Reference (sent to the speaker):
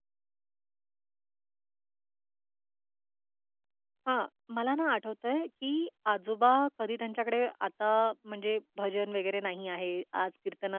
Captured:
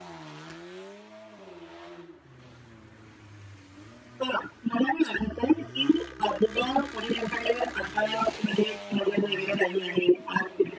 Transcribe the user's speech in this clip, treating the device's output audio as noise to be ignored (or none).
none